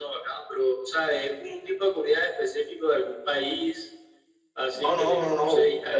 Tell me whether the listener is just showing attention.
No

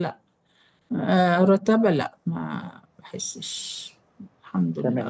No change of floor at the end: No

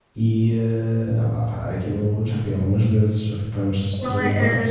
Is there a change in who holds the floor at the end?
Yes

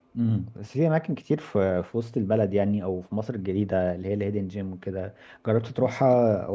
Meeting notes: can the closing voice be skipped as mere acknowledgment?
Yes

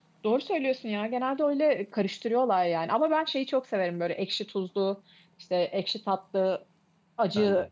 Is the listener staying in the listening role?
Yes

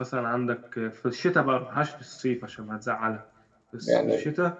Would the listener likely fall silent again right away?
Yes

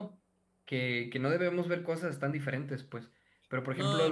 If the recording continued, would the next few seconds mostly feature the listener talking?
No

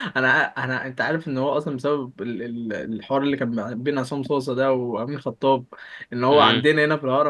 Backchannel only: Yes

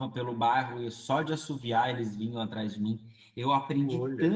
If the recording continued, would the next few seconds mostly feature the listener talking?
No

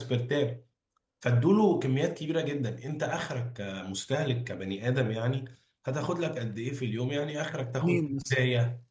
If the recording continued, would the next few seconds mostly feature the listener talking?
No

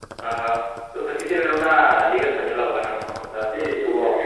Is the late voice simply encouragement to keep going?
No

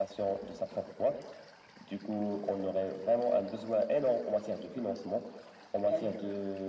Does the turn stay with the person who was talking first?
Yes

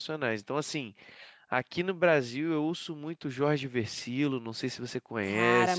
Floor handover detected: Yes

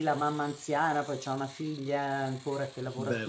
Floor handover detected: No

